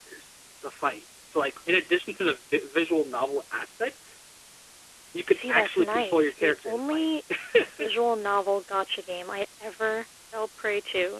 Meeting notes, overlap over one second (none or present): present